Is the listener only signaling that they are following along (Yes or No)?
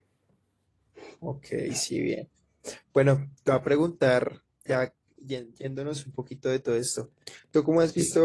Yes